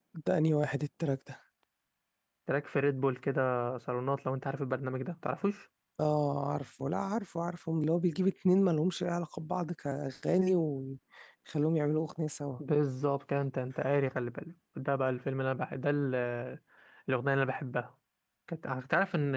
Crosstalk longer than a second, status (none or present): none